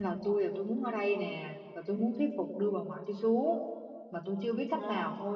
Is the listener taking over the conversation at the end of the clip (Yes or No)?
No